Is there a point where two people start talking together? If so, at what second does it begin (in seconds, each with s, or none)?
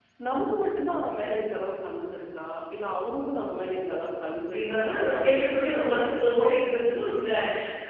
4.5 s